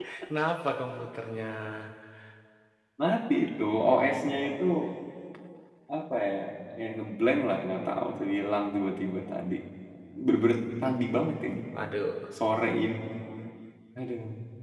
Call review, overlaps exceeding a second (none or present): none